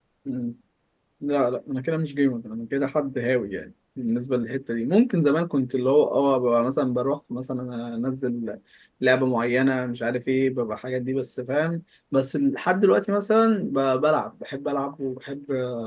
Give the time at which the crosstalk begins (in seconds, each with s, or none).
none